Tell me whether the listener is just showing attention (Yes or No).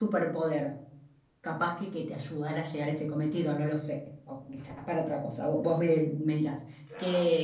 Yes